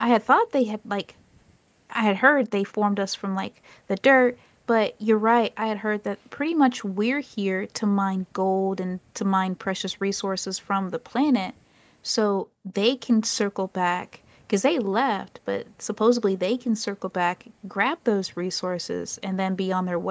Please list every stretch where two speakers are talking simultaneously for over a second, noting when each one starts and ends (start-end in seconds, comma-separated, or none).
none